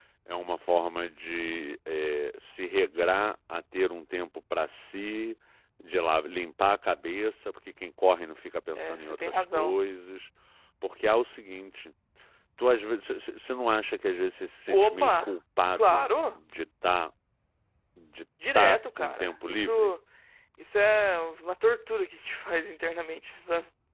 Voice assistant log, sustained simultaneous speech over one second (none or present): present